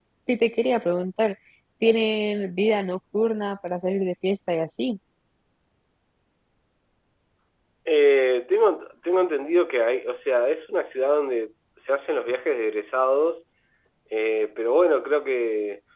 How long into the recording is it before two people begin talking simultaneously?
none

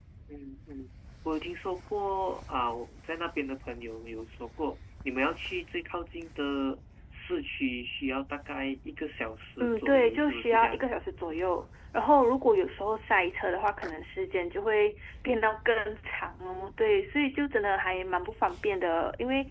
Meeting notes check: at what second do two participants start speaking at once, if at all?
9.6 s

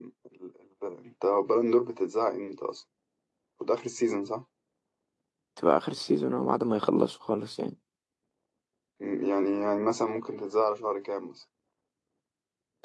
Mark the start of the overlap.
none

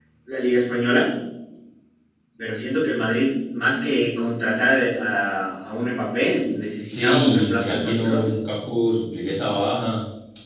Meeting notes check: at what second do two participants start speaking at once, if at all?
6.9 s

